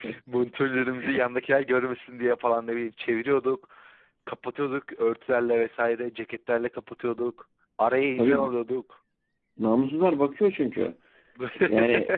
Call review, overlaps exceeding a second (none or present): none